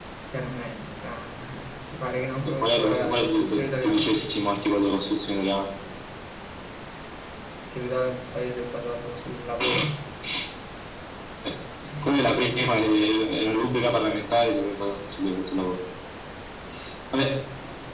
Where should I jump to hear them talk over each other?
2.6 s

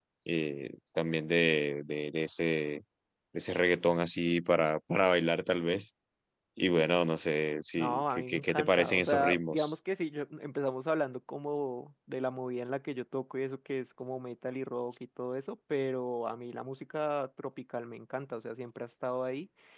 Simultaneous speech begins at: 7.8 s

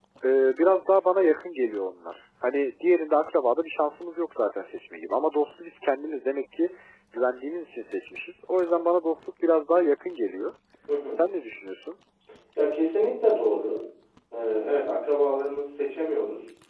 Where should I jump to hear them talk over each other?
none

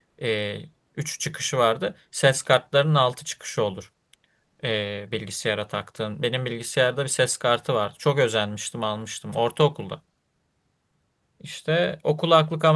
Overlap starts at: none

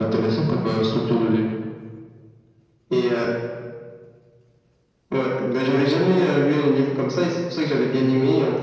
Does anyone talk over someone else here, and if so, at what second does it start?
none

